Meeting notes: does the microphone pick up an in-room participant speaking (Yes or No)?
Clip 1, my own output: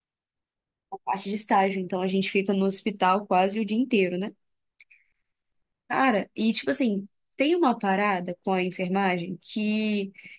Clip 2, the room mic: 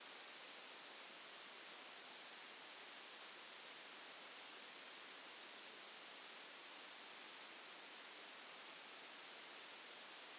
No